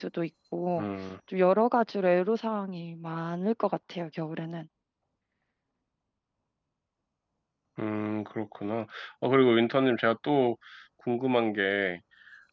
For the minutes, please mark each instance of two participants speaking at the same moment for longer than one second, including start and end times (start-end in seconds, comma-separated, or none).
none